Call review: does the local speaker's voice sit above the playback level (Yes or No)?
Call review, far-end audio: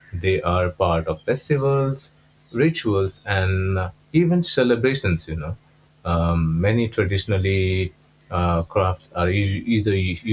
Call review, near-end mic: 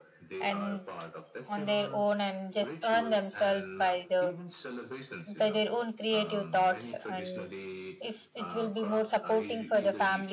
Yes